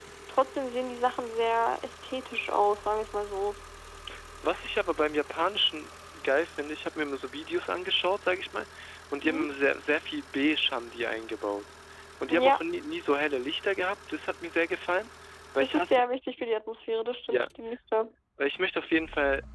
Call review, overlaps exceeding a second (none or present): none